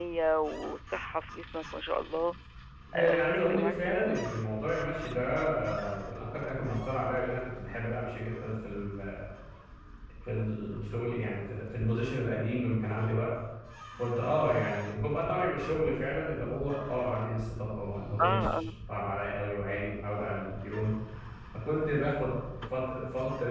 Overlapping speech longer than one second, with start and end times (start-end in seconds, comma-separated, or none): 3.0-4.2